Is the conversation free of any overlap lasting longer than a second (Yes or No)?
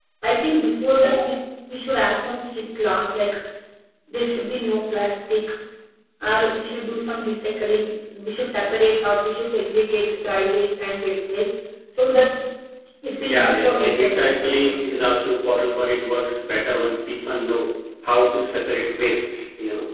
No